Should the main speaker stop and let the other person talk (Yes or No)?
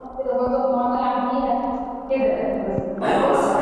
Yes